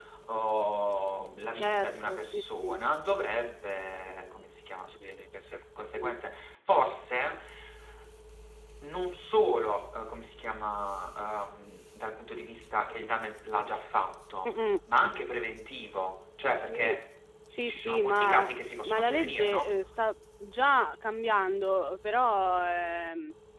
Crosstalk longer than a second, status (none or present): present